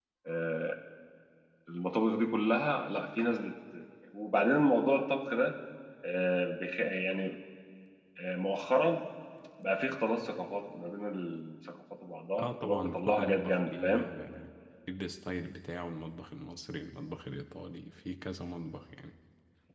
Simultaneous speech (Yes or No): Yes